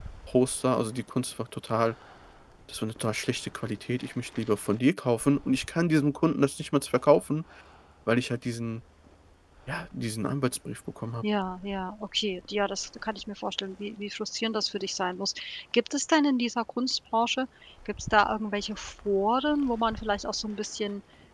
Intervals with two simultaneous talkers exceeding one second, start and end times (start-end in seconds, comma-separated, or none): none